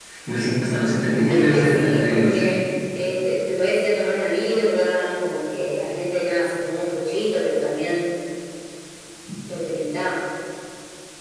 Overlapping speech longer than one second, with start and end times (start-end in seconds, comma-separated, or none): 1.3-2.6